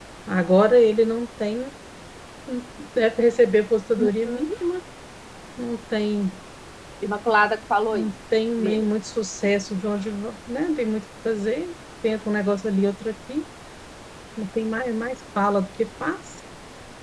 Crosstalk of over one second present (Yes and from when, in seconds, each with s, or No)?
No